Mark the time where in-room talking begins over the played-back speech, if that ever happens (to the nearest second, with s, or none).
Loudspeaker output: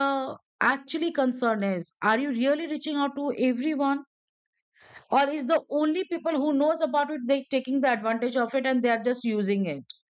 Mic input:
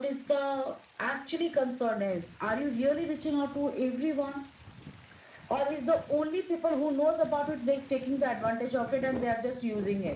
none